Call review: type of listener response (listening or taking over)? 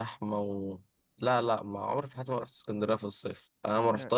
listening